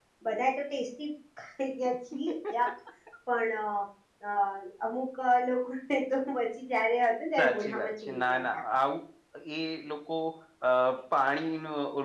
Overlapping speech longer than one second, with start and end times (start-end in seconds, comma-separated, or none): 7.4-8.6